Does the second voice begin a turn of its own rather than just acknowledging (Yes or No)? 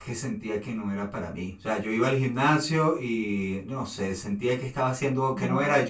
No